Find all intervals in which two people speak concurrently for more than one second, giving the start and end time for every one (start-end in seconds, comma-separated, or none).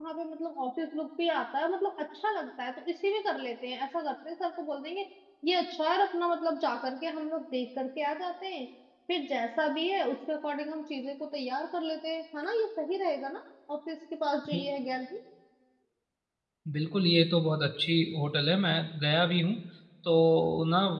none